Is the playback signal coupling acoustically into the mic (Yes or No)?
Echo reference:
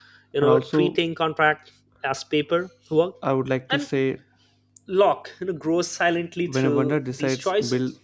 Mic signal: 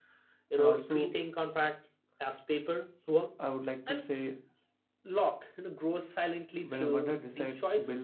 Yes